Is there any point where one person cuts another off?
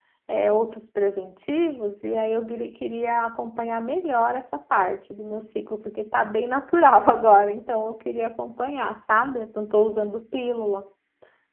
No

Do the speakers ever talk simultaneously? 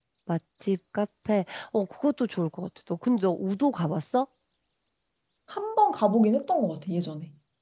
No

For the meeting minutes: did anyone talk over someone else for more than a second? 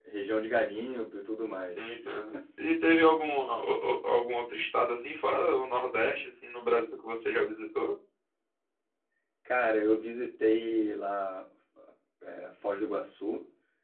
No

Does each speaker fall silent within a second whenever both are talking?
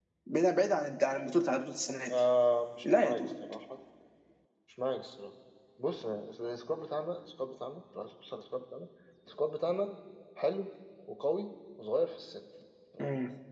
Yes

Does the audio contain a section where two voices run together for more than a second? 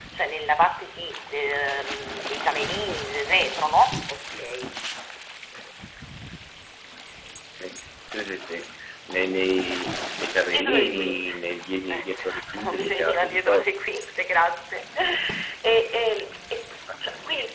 Yes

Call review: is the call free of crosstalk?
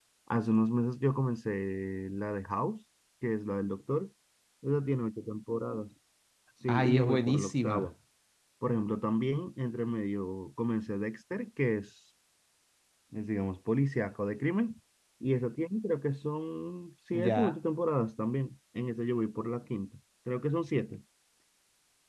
No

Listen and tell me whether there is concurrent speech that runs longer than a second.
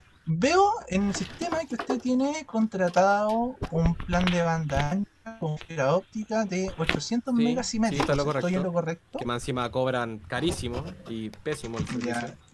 Yes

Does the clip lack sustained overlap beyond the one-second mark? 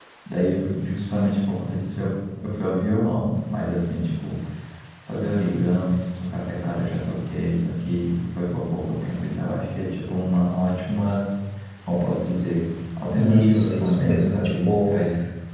No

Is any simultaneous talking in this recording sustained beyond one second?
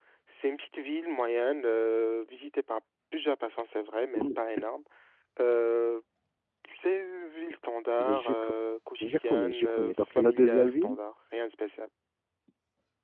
Yes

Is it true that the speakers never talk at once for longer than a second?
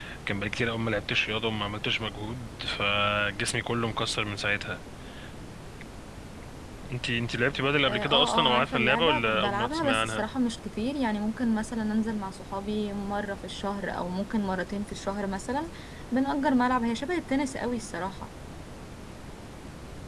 No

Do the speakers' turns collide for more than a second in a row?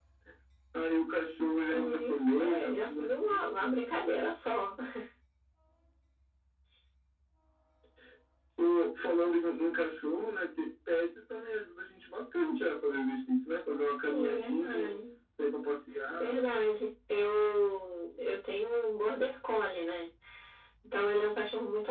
Yes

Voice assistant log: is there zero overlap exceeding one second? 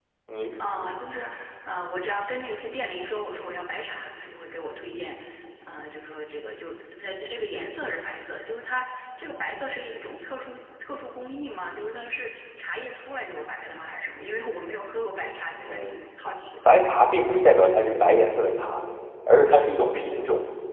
Yes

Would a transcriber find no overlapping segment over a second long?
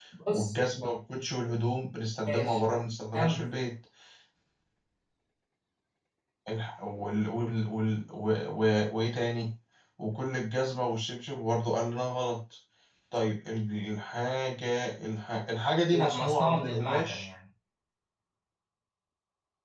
No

